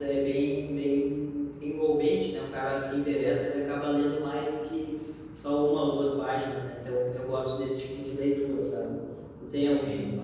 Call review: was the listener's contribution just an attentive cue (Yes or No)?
Yes